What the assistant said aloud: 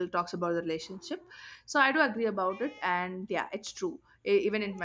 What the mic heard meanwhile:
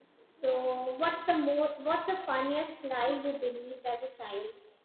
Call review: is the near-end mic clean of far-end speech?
Yes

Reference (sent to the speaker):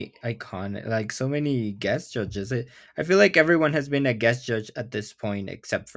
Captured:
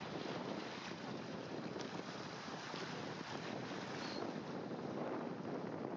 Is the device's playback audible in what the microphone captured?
No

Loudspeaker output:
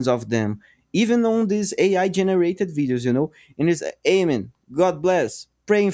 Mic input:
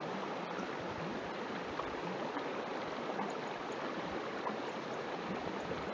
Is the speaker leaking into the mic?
No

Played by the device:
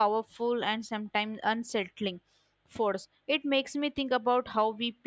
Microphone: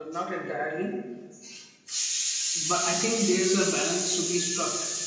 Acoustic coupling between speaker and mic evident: No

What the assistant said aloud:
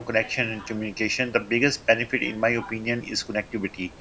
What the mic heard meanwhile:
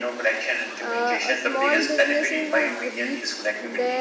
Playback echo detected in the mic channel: Yes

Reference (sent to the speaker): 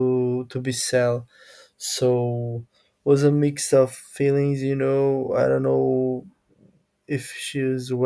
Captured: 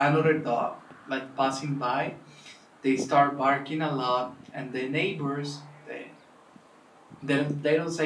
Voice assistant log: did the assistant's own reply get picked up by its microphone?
No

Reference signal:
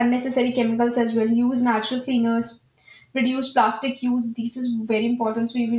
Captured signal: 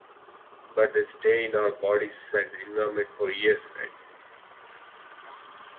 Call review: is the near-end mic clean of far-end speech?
Yes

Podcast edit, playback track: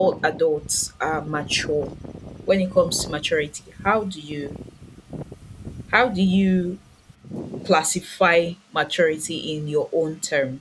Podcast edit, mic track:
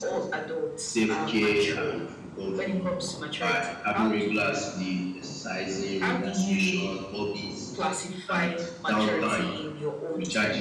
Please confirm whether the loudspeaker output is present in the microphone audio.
Yes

